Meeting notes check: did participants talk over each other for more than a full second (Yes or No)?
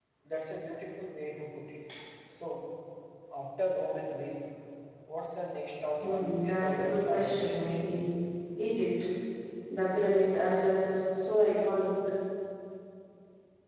Yes